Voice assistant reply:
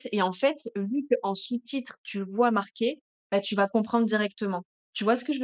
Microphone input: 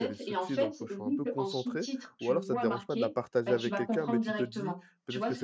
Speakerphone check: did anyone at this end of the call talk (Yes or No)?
Yes